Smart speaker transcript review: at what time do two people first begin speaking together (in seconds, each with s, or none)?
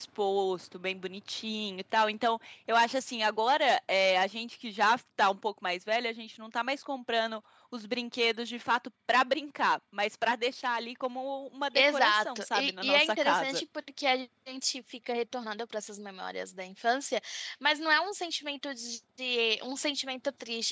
11.8 s